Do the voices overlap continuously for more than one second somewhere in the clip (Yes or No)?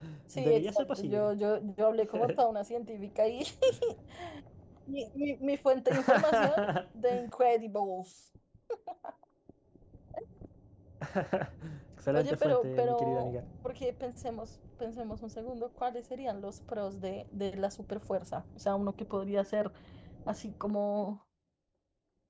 Yes